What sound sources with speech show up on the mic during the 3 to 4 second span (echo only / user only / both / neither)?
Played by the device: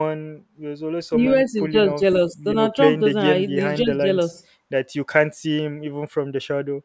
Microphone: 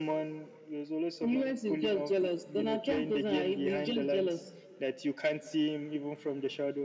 echo only